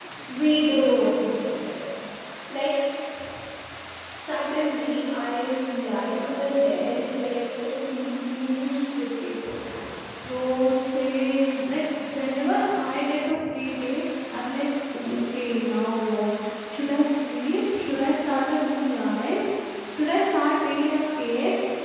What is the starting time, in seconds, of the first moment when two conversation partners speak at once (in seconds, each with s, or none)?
none